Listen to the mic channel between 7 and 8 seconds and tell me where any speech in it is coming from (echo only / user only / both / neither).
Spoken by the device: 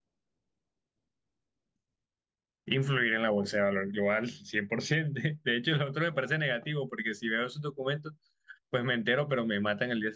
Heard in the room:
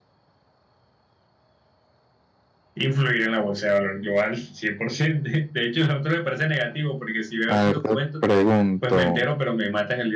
both